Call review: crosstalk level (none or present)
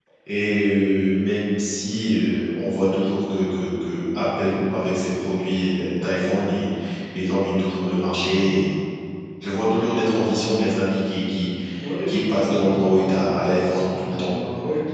present